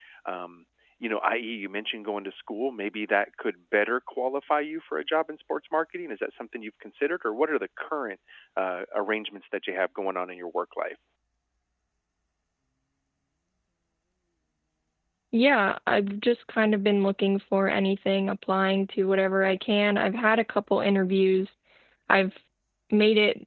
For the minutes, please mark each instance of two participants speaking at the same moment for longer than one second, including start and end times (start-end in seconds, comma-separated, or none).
none